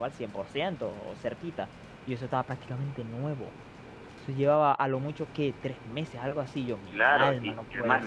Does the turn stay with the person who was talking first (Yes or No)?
No